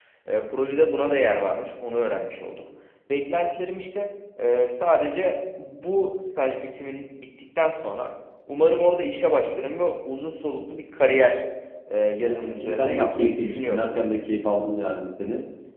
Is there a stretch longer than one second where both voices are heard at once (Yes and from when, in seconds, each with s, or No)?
Yes, from 12.2 s